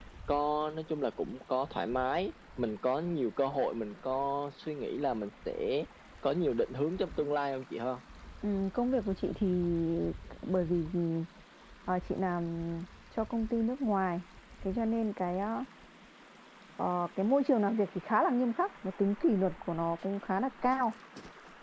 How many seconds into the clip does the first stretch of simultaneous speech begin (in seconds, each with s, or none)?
none